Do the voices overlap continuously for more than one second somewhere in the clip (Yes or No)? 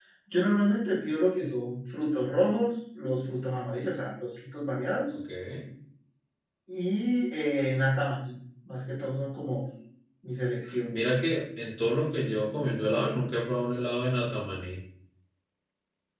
No